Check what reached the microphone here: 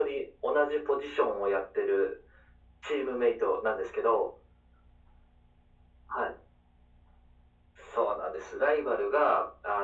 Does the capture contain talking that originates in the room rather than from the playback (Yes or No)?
No